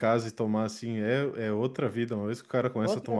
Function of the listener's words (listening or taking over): listening